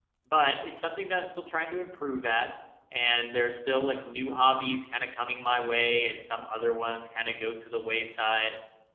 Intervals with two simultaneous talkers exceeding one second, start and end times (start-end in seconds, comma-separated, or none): none